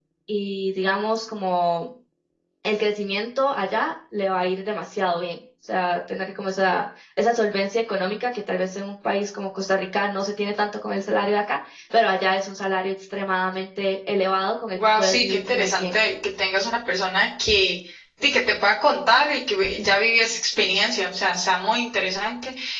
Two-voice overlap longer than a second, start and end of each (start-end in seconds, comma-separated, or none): 14.8-16.0